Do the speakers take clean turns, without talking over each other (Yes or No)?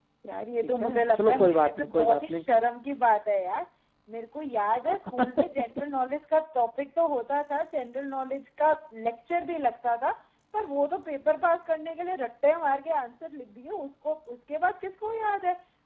No